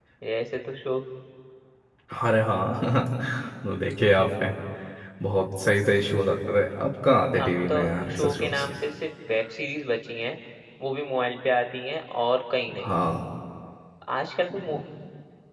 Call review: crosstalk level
present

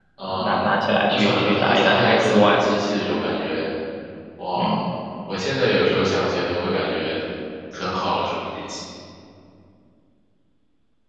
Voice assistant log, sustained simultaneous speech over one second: present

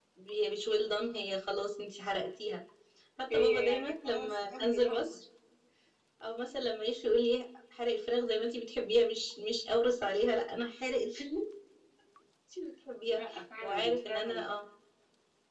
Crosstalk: present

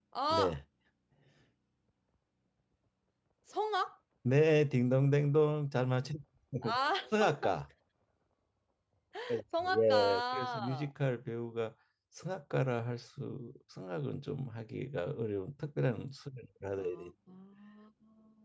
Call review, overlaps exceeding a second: present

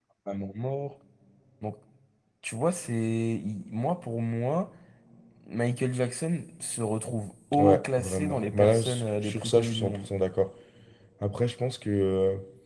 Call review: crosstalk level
present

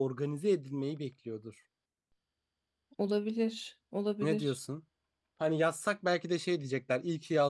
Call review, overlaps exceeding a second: none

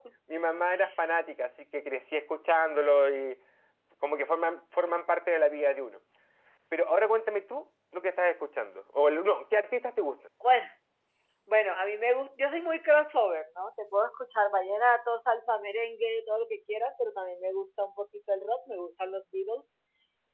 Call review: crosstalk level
none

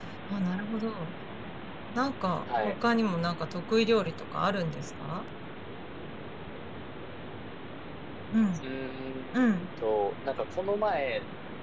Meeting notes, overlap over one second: none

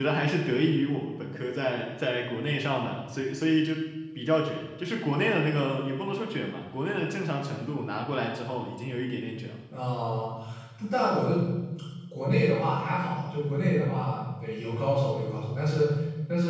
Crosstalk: none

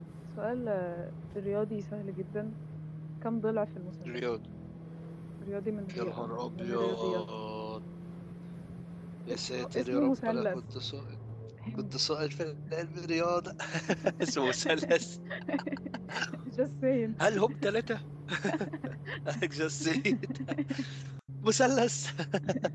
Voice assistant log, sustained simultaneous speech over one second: present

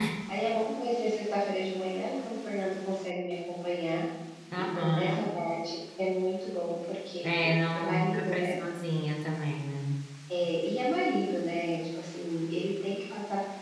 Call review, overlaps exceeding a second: present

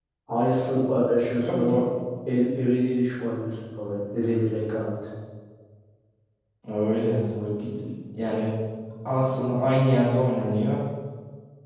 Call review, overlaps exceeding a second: none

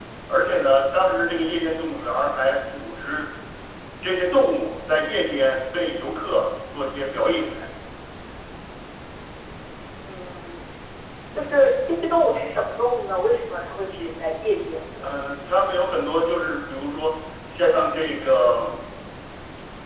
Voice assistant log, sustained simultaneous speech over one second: none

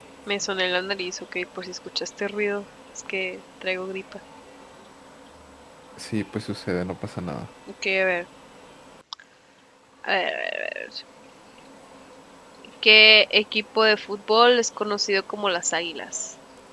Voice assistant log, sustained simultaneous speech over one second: none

